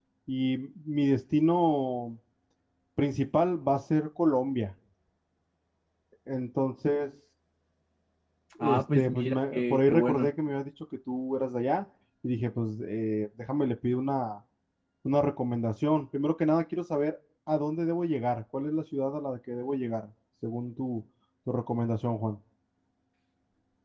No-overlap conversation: No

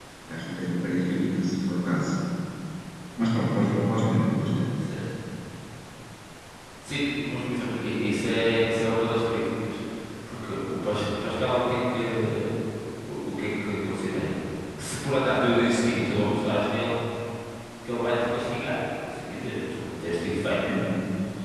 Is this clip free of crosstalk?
Yes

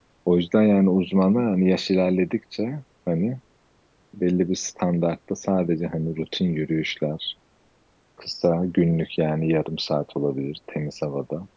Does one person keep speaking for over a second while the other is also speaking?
No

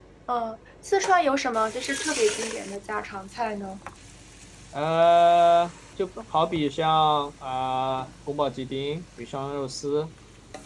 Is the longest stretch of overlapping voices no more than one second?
Yes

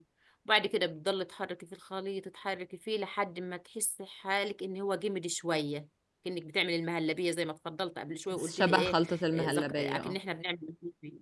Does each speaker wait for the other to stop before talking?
No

